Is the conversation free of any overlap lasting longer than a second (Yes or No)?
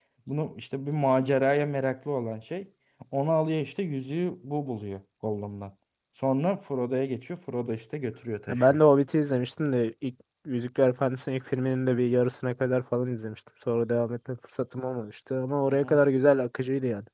Yes